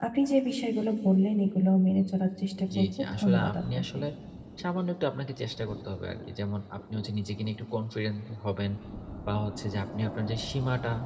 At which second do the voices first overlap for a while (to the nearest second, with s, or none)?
3 s